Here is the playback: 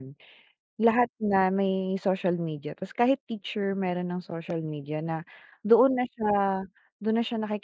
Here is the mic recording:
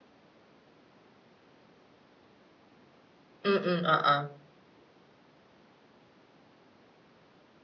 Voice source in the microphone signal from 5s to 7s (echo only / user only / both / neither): neither